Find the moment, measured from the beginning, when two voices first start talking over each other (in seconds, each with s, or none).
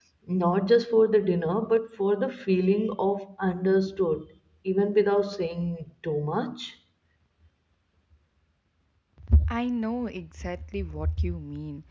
none